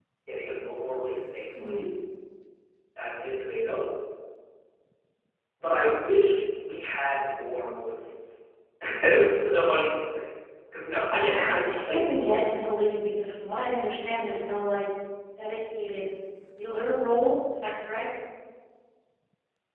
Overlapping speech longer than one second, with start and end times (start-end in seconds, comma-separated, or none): 11.1-12.7